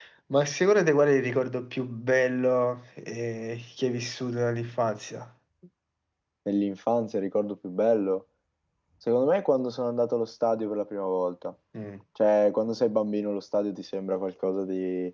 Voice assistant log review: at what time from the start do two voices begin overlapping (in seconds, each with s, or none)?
none